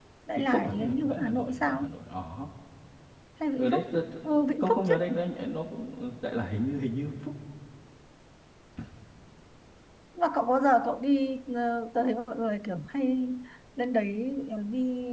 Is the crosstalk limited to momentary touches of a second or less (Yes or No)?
No